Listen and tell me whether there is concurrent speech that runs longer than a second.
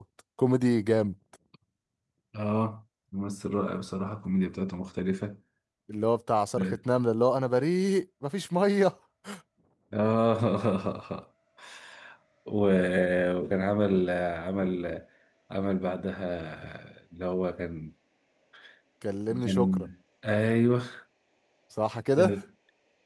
No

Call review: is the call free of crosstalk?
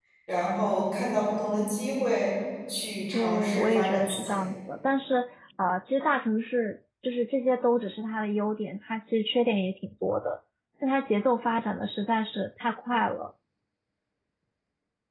No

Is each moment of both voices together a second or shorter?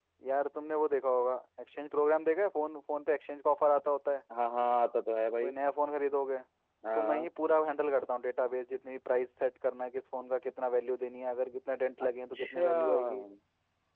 No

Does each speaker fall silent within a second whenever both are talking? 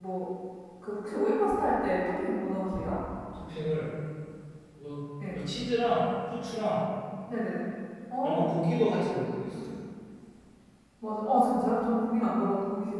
Yes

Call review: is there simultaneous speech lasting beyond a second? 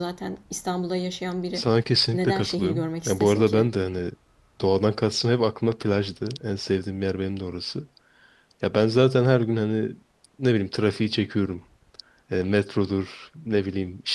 Yes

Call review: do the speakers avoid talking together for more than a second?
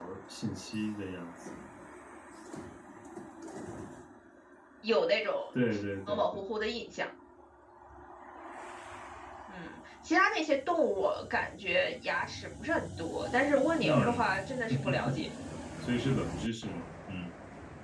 Yes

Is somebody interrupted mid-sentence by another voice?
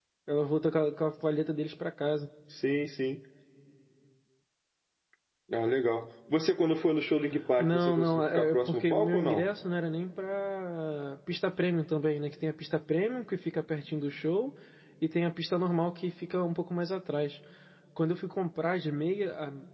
Yes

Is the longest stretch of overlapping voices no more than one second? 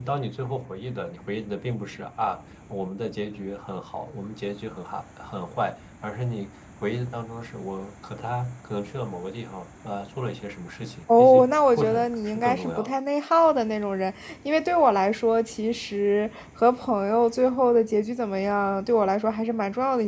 No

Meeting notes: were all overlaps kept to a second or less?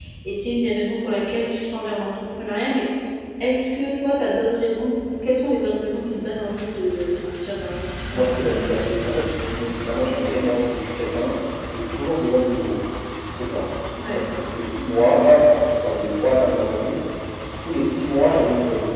Yes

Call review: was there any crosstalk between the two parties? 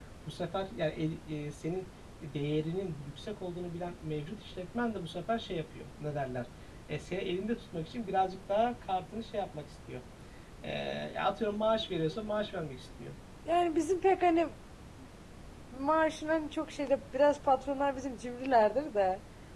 No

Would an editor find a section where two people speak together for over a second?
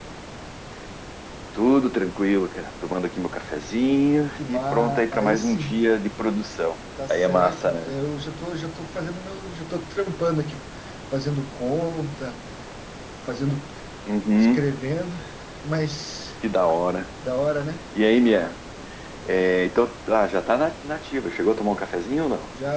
Yes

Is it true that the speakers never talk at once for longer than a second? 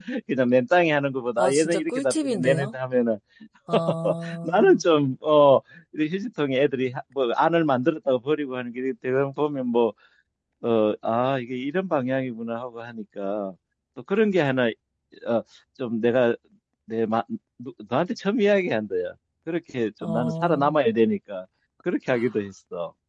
No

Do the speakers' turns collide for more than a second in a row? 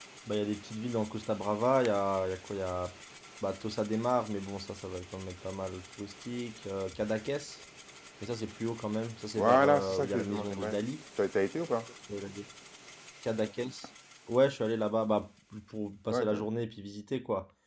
Yes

